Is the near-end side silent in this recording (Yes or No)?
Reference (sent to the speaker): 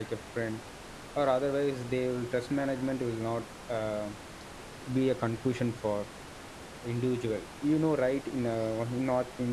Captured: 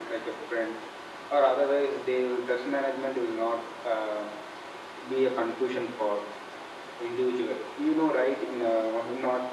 Yes